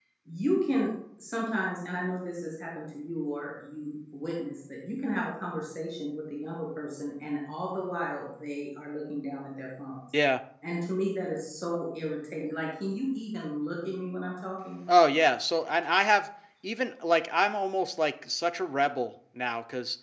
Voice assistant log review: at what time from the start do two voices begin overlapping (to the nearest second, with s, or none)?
none